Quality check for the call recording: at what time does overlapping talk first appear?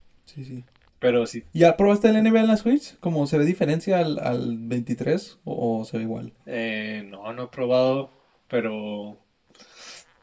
none

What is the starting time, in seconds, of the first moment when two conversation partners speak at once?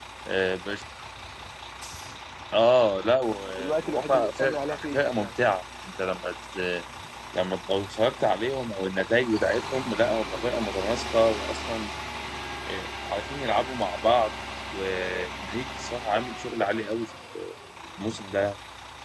3 s

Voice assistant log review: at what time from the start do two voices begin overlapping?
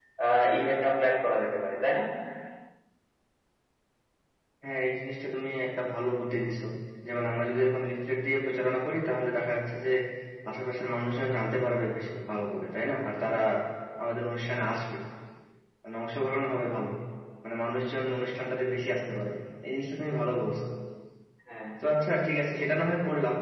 none

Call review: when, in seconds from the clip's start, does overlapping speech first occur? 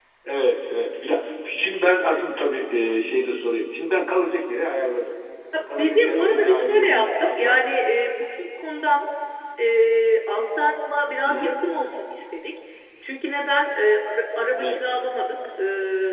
6 s

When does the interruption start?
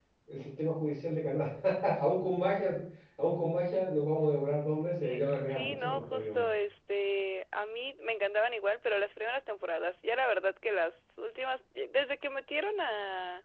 5 s

